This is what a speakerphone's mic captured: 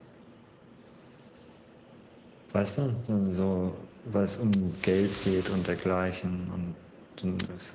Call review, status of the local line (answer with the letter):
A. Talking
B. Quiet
A